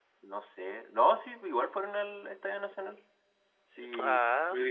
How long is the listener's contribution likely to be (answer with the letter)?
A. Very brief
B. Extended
A